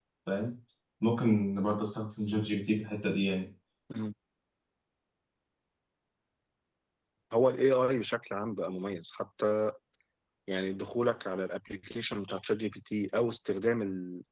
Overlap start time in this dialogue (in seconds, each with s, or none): none